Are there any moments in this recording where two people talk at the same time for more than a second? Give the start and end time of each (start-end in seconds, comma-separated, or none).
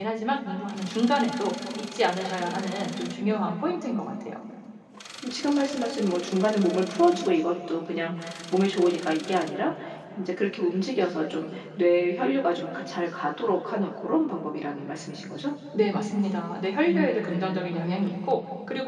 2.4-3.6, 16.9-18.1